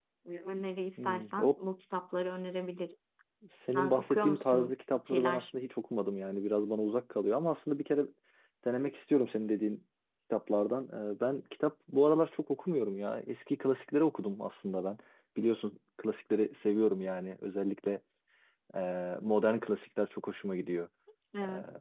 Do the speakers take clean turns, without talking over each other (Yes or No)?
No